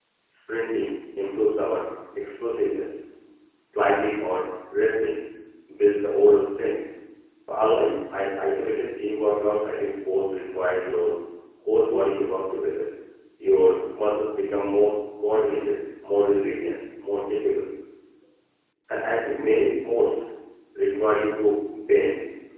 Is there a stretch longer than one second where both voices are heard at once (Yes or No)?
No